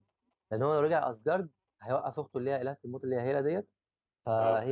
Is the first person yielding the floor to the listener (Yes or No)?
No